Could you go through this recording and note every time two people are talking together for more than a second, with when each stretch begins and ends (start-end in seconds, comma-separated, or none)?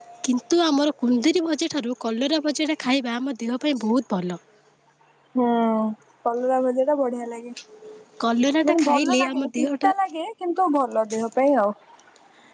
8.7-9.9